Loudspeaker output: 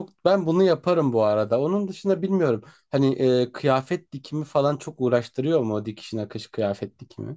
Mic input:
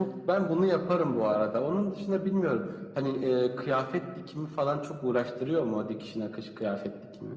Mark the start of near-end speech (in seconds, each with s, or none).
none